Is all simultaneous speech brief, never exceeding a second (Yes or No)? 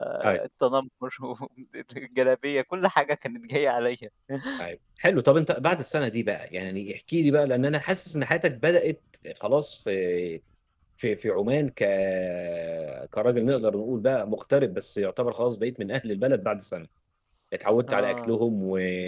Yes